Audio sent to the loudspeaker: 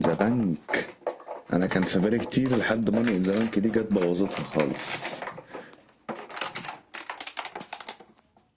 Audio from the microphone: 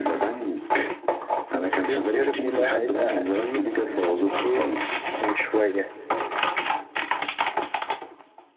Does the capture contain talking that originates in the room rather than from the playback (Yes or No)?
Yes